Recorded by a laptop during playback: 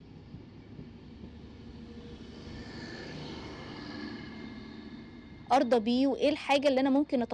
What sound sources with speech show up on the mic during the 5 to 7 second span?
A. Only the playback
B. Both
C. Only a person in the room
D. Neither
C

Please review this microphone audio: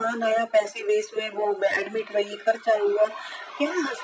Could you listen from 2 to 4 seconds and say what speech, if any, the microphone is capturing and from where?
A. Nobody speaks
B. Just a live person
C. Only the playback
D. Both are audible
C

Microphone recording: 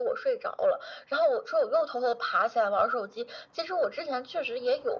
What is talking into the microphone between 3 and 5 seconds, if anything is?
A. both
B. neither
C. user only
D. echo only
D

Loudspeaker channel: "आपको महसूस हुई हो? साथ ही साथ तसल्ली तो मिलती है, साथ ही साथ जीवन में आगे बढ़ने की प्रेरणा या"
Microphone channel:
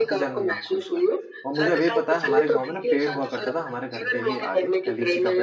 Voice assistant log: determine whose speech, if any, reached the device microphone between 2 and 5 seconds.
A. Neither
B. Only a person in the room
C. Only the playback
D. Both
D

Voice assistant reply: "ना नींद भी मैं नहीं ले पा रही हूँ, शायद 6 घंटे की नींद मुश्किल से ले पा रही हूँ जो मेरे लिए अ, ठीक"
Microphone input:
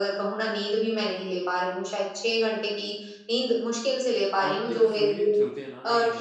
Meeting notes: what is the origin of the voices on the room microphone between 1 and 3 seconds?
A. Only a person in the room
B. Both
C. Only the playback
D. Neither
C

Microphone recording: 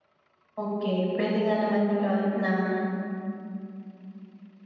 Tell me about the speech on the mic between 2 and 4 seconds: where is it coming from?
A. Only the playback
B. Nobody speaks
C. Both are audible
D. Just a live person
D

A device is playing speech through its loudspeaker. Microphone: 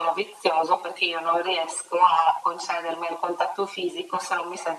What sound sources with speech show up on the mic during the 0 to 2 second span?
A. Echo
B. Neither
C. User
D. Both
A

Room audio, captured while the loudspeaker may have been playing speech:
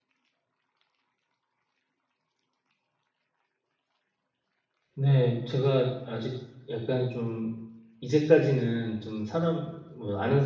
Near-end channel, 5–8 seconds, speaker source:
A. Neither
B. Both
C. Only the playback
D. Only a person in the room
D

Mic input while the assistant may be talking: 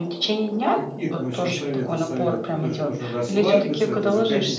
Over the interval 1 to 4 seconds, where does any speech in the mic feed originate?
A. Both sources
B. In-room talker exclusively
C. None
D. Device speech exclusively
A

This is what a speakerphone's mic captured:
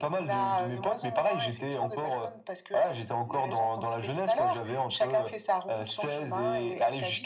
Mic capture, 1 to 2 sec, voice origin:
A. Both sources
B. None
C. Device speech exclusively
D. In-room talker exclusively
C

